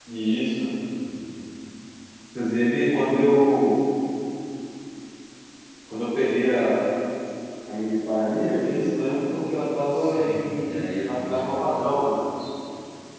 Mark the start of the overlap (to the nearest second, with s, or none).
10 s